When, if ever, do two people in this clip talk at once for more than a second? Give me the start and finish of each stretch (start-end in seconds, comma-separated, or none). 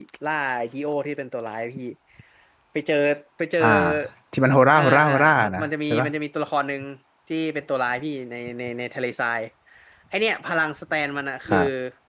4.8-6.1